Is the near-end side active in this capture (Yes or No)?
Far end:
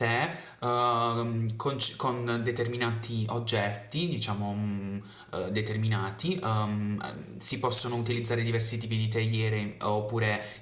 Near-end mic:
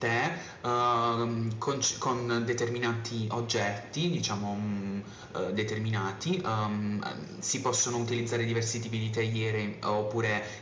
No